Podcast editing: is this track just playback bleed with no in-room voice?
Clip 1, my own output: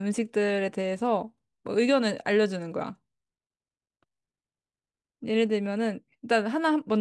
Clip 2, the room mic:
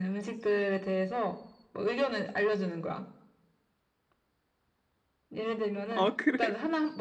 No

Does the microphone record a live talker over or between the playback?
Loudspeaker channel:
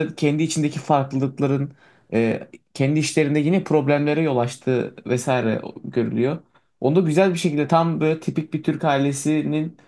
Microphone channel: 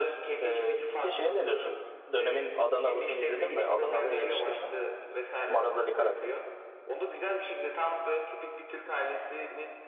Yes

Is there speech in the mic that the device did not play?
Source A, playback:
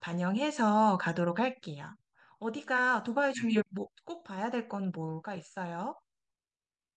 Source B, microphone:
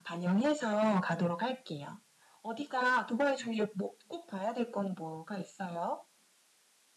No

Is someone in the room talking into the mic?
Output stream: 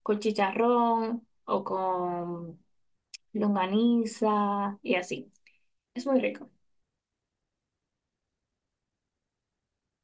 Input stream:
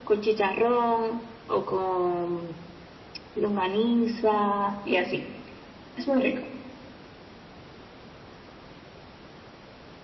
No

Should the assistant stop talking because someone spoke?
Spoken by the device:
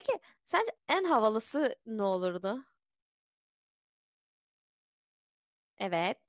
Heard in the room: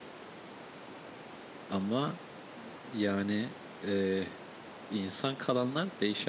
Yes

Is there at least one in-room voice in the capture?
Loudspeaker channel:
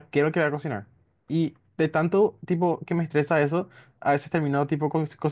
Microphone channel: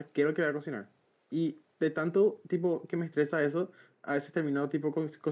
No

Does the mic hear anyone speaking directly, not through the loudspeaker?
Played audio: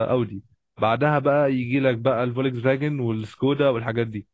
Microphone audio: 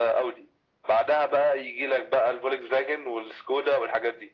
No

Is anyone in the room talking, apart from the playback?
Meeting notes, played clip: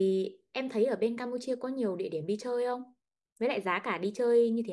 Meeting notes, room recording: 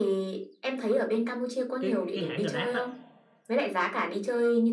Yes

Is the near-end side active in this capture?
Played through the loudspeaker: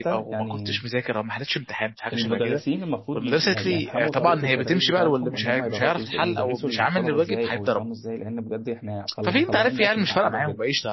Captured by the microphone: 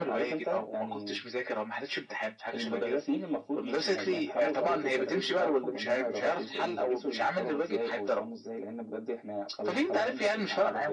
No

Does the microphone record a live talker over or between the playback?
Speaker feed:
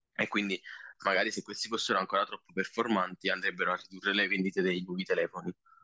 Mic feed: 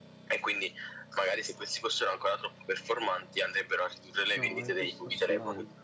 Yes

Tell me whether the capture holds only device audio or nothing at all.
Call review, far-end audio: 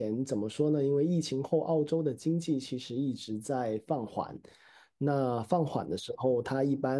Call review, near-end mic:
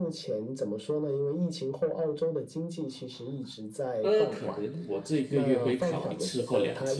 No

